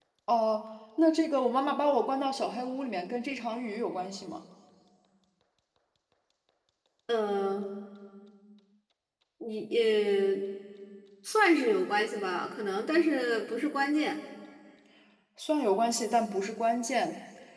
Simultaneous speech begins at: none

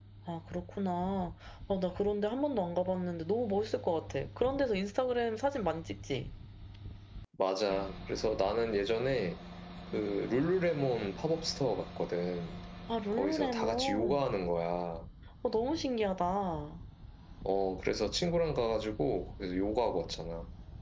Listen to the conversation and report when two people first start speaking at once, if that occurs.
13.1 s

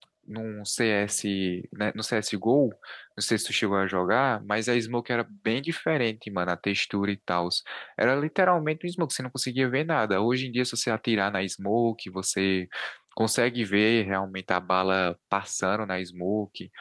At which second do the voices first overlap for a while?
none

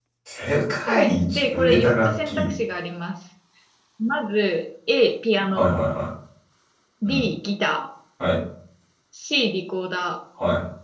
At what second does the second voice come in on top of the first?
0.9 s

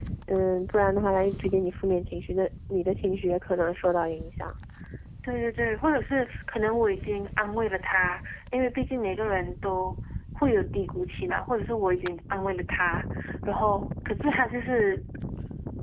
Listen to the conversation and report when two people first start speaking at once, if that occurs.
none

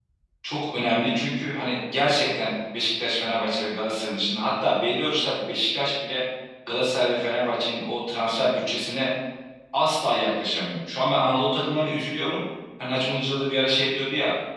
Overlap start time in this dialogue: none

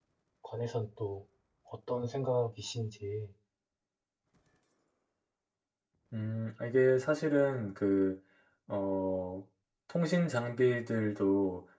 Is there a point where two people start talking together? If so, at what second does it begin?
none

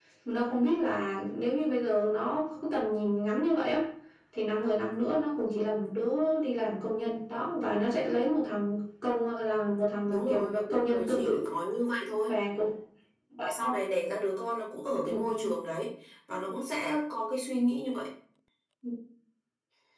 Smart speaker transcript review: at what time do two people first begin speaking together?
10.1 s

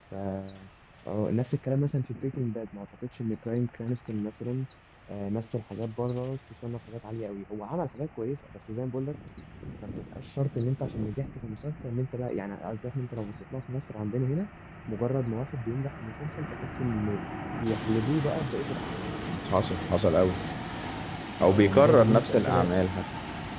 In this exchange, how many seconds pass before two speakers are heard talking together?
21.5 s

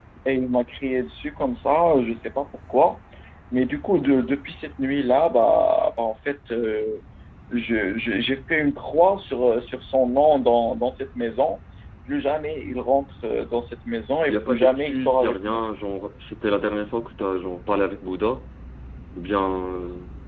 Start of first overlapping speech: 14.3 s

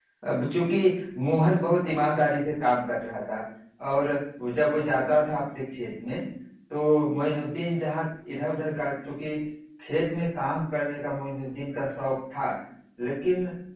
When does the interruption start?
none

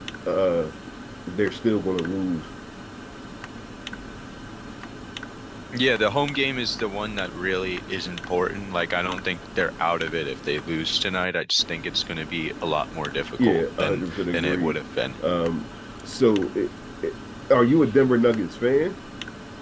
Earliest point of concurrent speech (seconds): 13.4 s

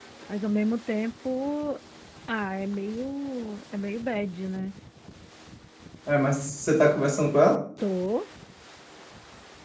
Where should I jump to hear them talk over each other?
none

